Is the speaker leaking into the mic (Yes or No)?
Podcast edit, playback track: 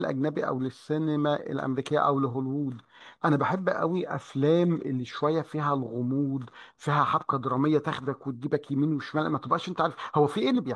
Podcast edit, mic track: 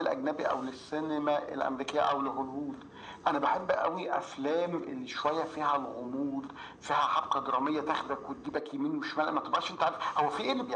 Yes